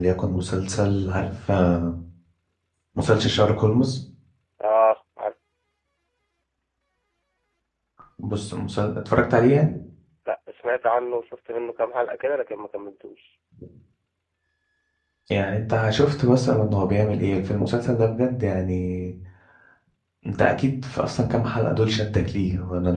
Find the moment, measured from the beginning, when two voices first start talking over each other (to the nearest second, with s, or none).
none